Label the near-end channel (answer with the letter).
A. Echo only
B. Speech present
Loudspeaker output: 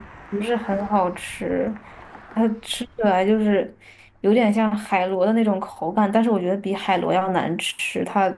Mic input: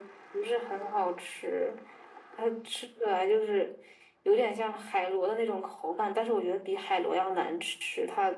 A